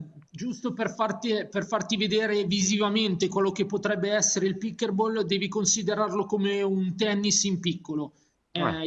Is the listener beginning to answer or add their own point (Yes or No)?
No